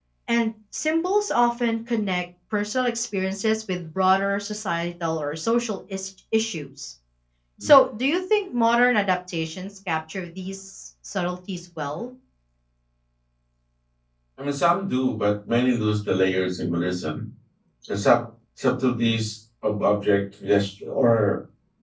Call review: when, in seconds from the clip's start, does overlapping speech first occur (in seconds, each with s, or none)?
none